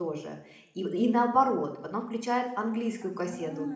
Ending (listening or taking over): listening